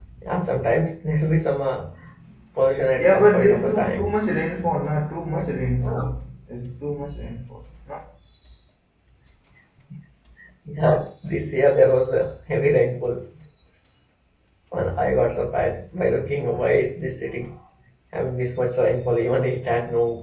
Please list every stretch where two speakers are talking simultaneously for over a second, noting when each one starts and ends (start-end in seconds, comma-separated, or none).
3.0-4.2